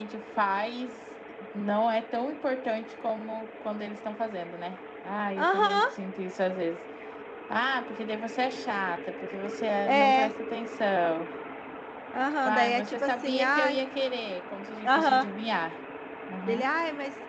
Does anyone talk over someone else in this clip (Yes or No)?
Yes